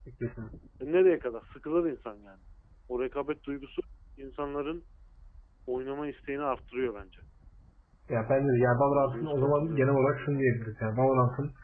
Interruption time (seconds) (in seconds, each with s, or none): 8.9 s